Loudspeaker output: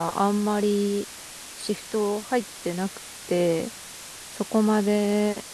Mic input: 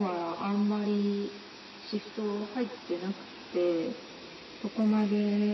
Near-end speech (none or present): none